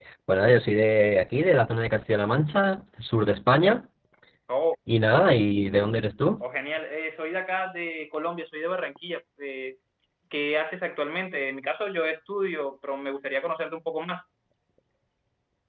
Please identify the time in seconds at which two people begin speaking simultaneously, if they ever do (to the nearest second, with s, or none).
none